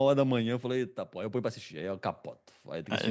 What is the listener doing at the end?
taking over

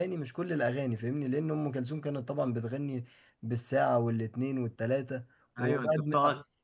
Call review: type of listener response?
taking over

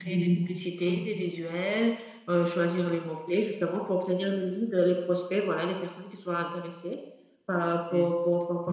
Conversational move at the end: listening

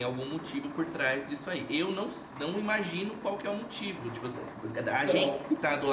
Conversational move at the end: listening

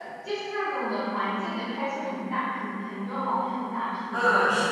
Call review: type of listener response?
taking over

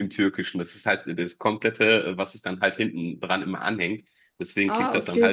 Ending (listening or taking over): listening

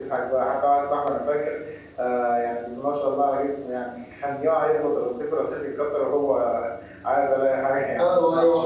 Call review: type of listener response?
taking over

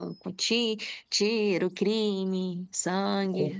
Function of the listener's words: taking over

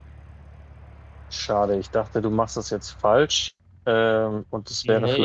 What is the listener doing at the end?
listening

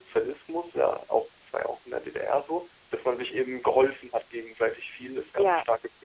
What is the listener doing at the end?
listening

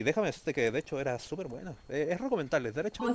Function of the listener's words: taking over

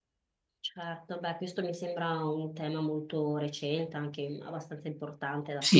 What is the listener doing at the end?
taking over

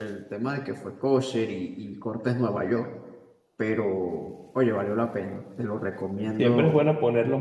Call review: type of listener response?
taking over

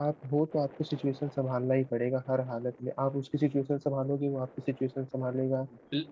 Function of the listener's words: taking over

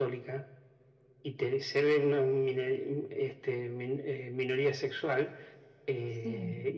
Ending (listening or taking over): listening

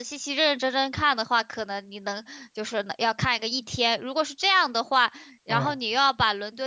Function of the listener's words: listening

